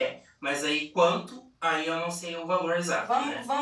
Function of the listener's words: taking over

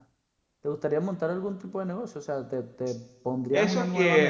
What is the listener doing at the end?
taking over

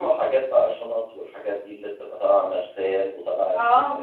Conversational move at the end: listening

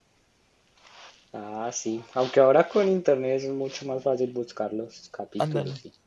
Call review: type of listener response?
taking over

